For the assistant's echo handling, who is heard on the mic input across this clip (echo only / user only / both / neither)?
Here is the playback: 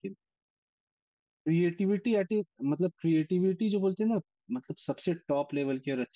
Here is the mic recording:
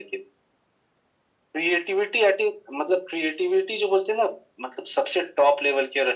echo only